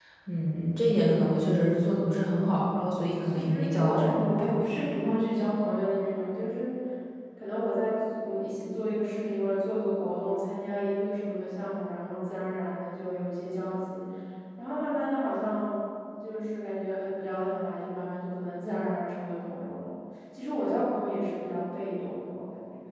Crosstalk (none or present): present